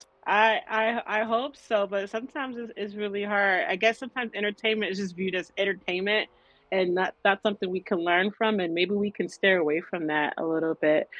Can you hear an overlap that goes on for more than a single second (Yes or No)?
No